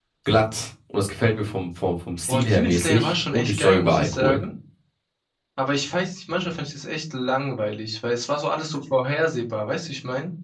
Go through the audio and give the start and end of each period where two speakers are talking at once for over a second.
2.3-4.4

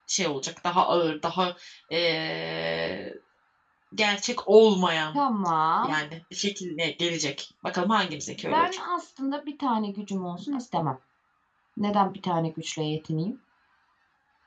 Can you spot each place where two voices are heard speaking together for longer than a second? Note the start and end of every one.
none

